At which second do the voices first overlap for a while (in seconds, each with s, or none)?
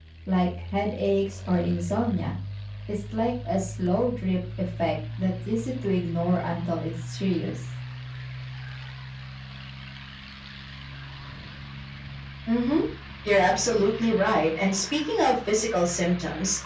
none